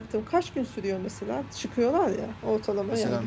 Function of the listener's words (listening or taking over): taking over